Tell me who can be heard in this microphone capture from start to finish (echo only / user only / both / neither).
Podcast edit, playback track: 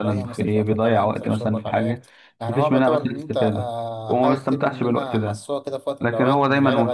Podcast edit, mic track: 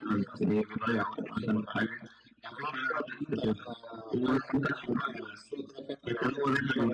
echo only